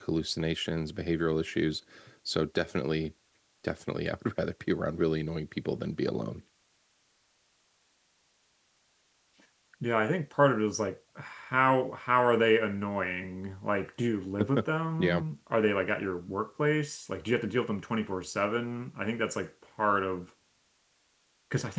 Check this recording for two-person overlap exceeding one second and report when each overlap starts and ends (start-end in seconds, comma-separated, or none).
none